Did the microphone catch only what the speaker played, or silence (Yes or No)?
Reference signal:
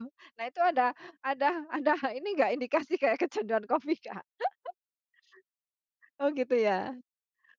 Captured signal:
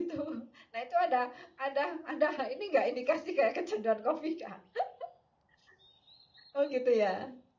Yes